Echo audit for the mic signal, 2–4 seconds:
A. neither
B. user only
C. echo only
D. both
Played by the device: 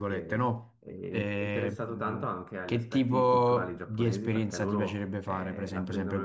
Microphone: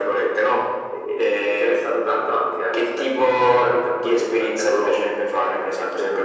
C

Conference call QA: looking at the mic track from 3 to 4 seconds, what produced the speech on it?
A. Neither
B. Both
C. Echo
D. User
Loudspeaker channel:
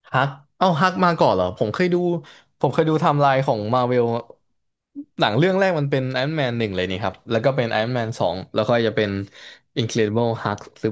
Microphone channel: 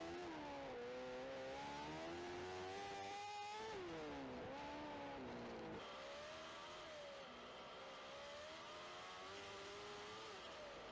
A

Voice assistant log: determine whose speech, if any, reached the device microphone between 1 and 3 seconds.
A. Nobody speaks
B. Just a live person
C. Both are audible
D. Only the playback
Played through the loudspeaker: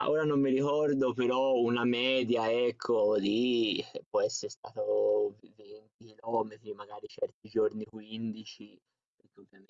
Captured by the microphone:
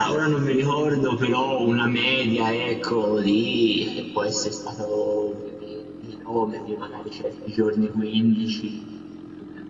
D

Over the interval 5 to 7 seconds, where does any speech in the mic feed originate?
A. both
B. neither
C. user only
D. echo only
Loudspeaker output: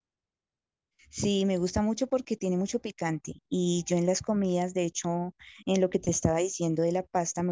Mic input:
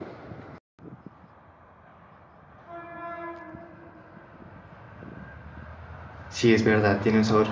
C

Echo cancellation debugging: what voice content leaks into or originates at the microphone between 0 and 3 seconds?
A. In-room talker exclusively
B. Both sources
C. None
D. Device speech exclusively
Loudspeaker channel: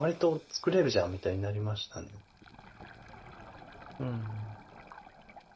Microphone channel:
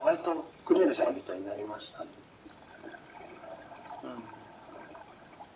D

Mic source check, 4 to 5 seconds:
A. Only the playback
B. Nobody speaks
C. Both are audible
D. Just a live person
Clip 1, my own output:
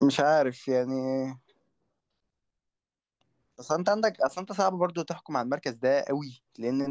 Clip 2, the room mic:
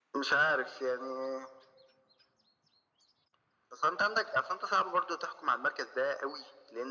A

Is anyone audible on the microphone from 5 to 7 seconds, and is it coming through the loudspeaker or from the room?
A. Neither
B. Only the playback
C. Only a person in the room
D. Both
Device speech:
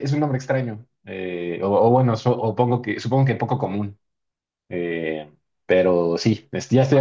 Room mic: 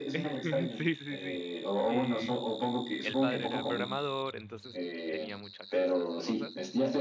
D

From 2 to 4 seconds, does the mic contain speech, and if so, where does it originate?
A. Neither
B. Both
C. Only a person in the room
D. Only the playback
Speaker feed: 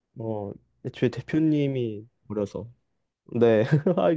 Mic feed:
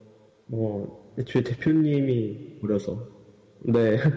D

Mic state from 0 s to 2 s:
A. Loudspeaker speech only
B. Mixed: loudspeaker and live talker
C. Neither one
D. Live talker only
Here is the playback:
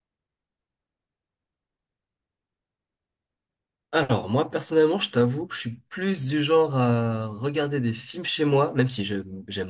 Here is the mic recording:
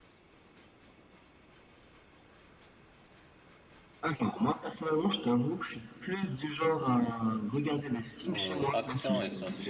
C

